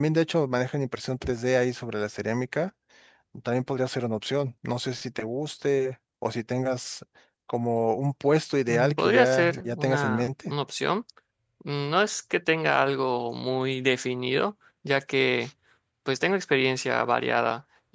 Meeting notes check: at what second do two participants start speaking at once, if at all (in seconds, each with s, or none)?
8.7 s